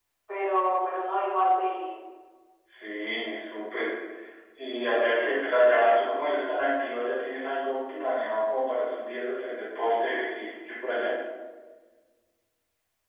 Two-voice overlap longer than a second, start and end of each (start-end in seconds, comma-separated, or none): none